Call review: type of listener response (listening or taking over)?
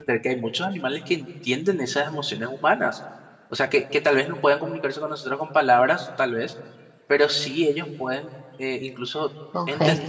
listening